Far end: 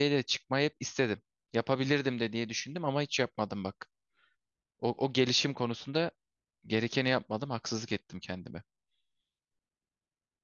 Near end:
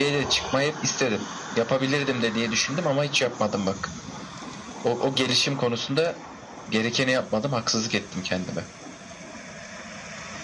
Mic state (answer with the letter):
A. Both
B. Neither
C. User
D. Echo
D